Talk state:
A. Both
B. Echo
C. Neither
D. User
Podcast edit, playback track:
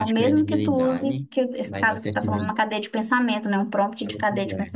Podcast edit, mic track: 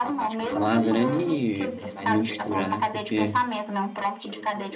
A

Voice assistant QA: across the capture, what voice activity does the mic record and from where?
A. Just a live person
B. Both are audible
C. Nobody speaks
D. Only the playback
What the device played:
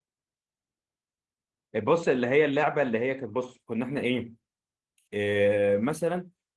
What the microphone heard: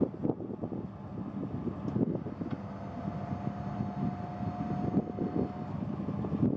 C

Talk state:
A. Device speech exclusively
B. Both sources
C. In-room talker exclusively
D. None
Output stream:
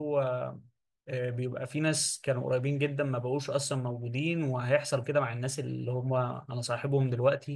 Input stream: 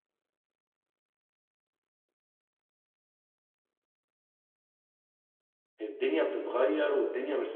C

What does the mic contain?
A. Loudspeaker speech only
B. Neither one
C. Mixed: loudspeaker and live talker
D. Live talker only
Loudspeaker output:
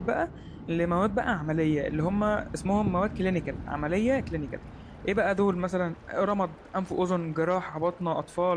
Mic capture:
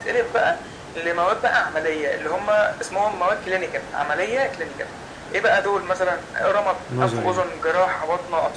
C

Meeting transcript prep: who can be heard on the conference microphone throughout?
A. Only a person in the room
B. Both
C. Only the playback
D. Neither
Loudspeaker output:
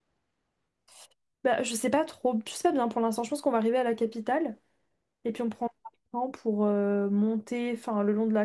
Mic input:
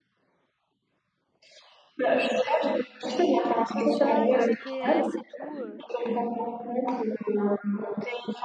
B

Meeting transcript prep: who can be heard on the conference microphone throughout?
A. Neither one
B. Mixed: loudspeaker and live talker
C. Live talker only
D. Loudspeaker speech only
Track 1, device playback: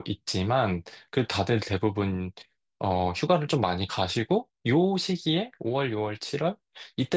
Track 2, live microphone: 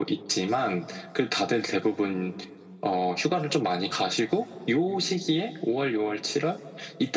D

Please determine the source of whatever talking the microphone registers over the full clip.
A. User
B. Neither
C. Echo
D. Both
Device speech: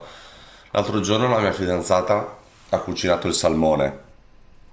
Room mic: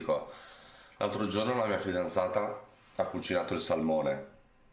C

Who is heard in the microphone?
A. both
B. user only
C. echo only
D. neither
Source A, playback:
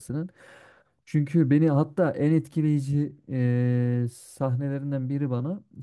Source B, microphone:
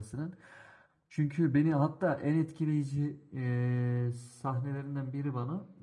C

